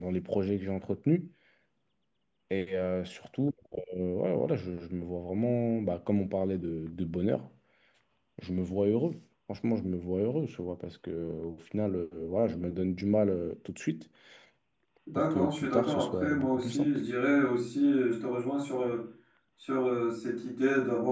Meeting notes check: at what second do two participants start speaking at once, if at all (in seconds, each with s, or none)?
15.1 s